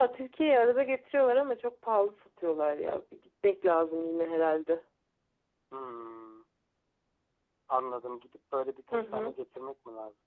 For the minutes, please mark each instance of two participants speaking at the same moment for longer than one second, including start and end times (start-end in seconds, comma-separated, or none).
none